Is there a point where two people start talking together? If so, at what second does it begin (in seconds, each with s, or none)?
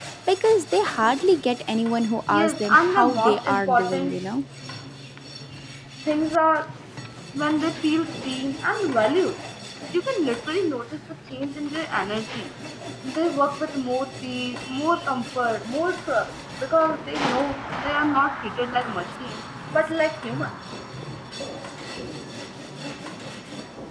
2.3 s